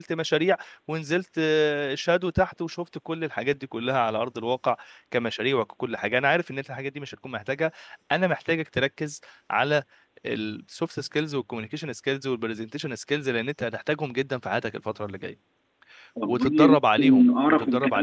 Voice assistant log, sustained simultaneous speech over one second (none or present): present